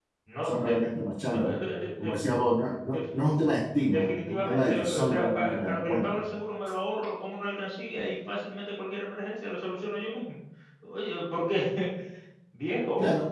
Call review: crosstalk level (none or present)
present